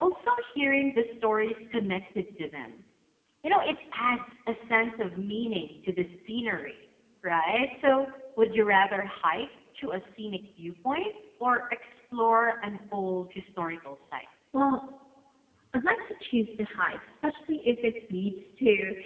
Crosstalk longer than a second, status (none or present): none